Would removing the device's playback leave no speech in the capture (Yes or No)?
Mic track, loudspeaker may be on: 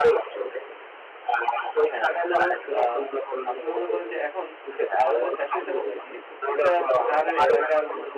No